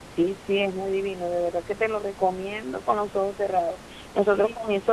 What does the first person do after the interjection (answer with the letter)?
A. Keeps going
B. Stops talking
A